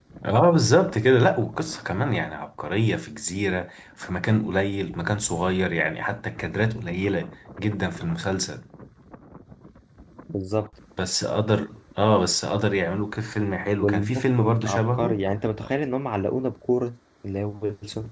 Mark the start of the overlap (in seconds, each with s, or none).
13.8 s